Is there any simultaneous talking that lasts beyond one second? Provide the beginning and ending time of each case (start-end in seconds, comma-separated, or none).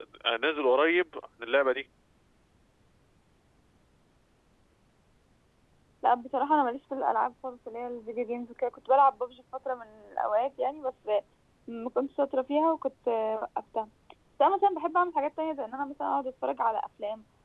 none